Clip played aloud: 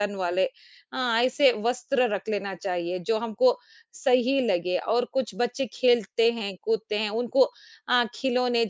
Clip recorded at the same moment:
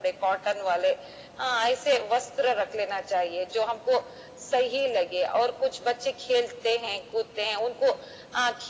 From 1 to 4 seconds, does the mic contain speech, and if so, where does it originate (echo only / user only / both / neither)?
echo only